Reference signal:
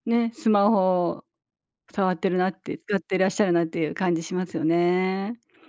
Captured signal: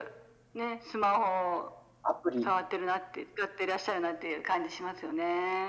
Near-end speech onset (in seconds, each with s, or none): 2.0 s